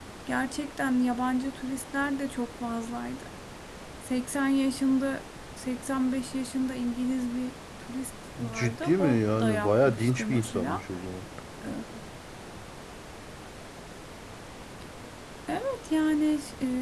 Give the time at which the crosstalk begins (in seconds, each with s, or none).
8.4 s